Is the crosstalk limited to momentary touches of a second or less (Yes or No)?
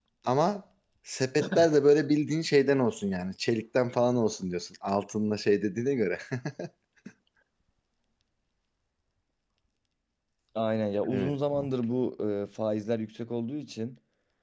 Yes